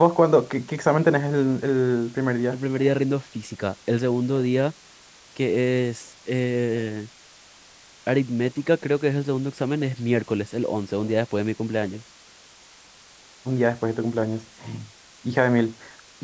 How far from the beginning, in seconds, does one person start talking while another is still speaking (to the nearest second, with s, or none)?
none